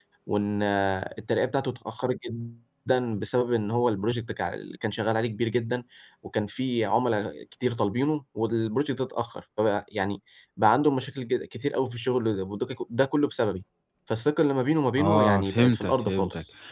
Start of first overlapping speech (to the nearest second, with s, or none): 15 s